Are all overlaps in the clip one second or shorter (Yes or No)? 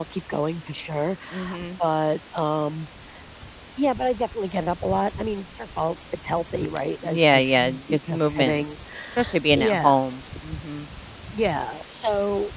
No